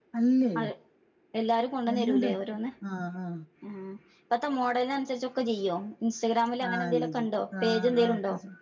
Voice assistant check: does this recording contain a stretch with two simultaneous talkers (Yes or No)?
Yes